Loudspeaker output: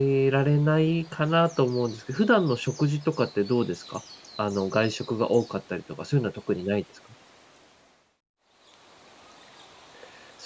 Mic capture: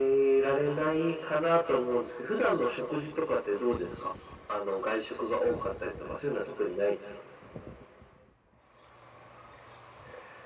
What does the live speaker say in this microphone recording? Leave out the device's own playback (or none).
none